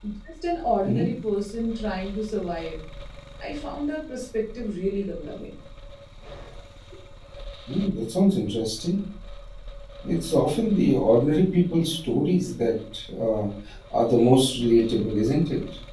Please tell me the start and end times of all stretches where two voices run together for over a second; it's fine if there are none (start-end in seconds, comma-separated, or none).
none